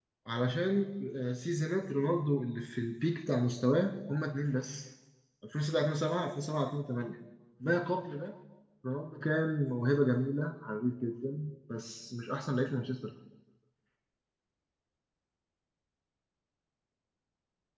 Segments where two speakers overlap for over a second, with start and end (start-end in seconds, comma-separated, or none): none